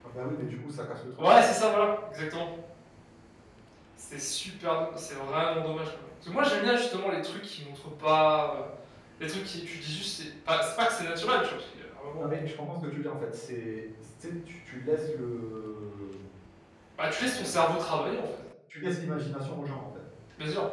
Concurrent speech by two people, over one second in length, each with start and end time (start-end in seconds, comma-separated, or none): none